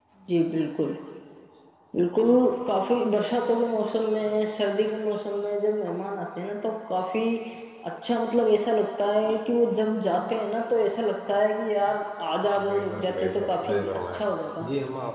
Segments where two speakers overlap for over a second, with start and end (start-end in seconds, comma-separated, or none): 12.7-14.0